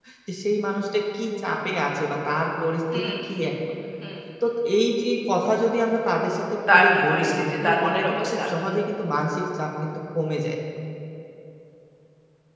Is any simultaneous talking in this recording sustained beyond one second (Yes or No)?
Yes